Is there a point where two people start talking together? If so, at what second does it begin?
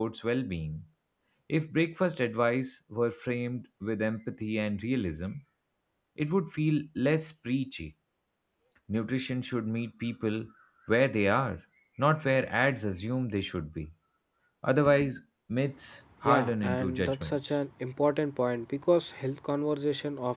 16.2 s

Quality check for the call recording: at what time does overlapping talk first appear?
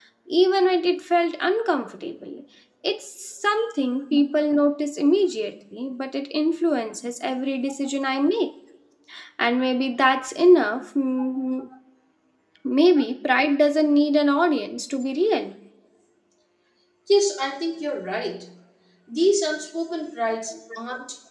none

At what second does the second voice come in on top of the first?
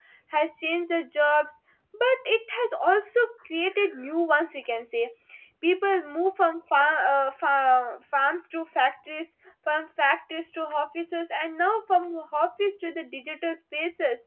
none

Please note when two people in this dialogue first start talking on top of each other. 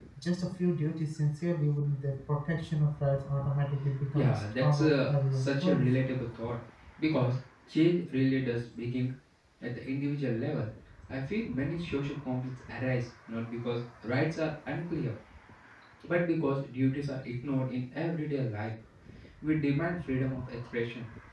4.1 s

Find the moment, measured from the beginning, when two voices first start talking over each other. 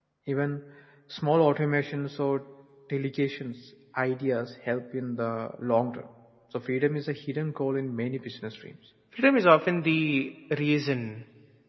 none

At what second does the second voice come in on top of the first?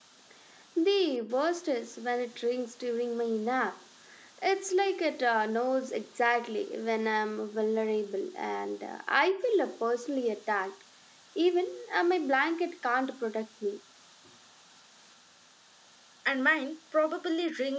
none

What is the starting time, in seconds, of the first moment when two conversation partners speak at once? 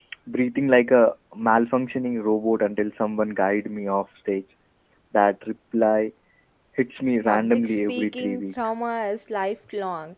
7.2 s

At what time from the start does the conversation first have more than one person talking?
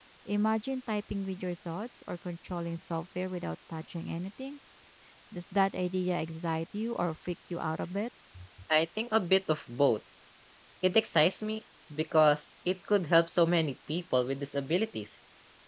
none

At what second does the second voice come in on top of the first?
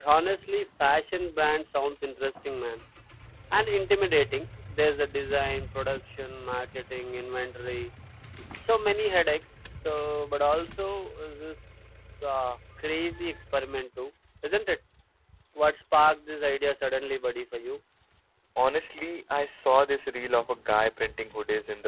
none

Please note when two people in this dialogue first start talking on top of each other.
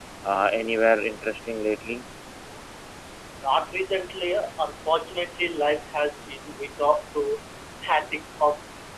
none

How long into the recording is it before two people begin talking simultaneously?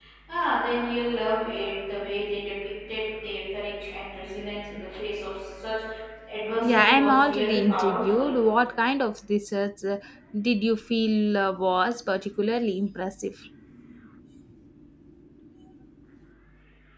6.6 s

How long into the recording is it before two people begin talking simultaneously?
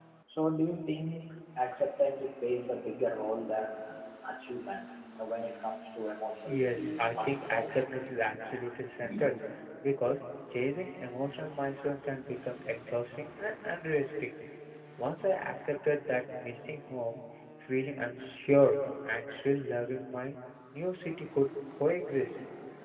6.4 s

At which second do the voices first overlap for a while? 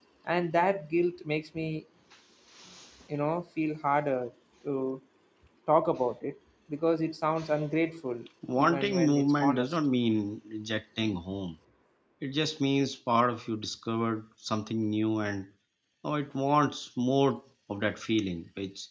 8.4 s

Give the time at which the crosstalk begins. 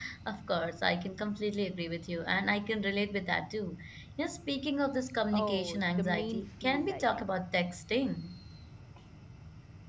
5.3 s

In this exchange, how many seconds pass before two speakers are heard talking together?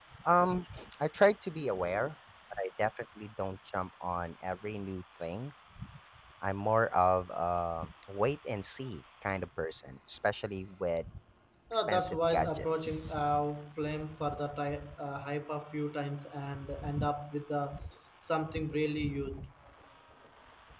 11.7 s

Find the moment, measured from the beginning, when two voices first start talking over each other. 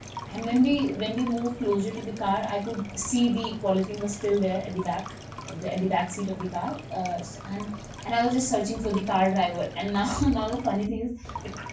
none

